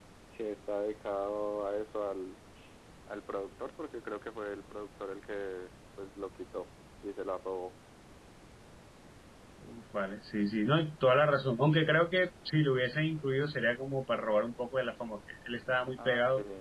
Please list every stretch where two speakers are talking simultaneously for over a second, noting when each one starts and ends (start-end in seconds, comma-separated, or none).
none